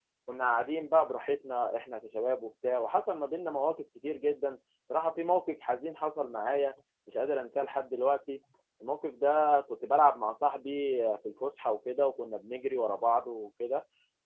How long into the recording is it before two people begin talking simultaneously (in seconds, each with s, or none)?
none